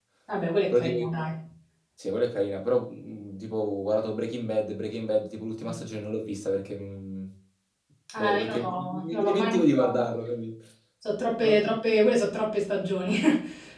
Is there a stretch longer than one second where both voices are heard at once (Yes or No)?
Yes